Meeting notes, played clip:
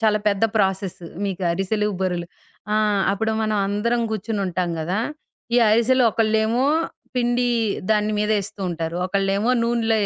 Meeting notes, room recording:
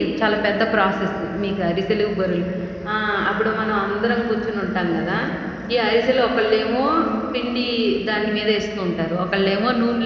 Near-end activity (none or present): none